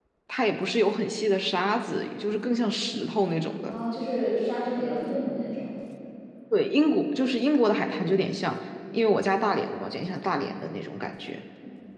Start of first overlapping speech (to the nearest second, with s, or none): none